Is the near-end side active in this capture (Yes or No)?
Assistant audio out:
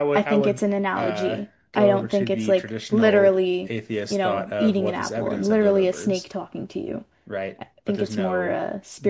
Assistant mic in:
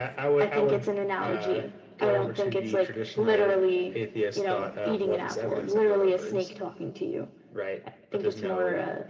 No